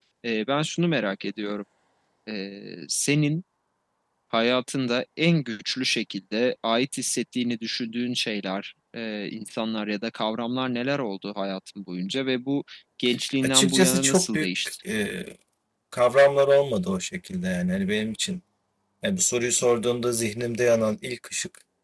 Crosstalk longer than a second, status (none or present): present